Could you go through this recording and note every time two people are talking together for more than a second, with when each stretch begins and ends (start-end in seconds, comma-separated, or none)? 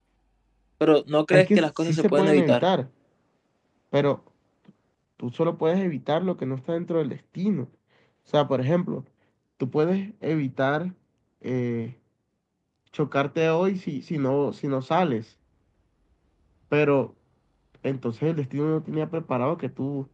1.3-2.6